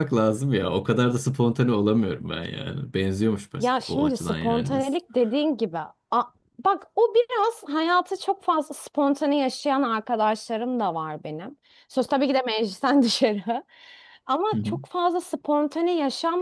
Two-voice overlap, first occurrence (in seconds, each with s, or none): 3.6 s